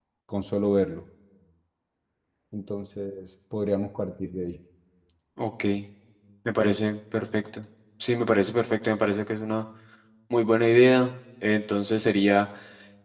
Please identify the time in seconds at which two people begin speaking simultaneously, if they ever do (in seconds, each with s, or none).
none